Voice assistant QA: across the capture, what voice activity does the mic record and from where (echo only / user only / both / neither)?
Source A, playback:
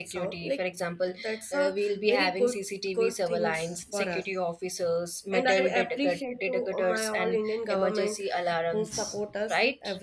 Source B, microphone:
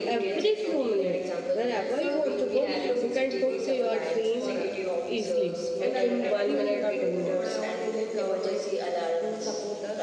both